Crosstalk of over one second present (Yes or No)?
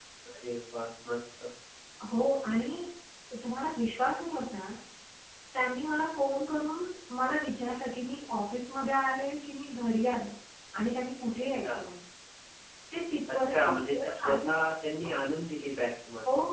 Yes